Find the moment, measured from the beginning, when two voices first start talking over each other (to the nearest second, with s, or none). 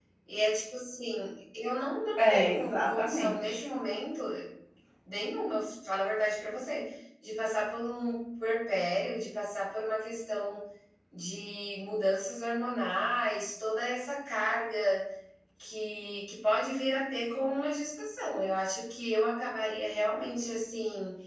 2 s